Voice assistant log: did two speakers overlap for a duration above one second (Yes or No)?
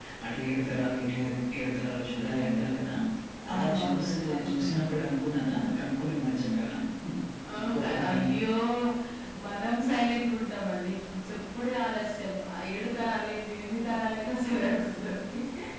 Yes